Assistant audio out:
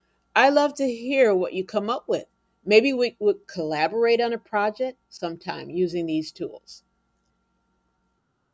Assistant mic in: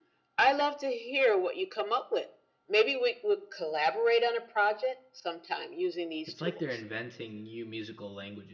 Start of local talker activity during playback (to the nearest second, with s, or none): 6 s